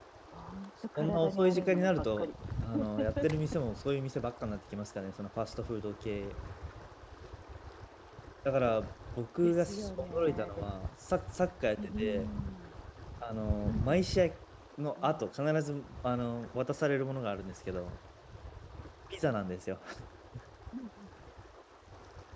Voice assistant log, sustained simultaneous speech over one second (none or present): present